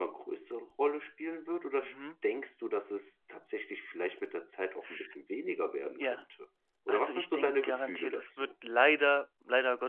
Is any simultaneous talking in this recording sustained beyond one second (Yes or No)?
Yes